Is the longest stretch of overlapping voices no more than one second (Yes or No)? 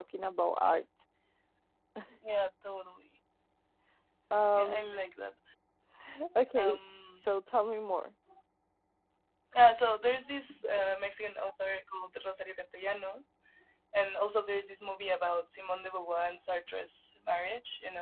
Yes